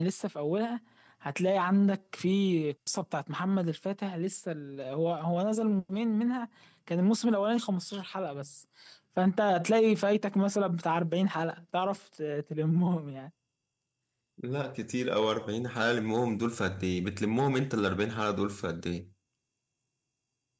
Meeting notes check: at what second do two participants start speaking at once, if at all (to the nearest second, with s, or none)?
none